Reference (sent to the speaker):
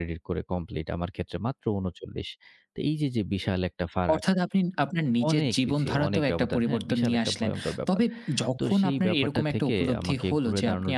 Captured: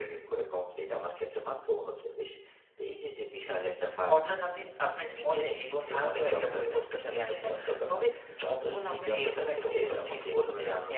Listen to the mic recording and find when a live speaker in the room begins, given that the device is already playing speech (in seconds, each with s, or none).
none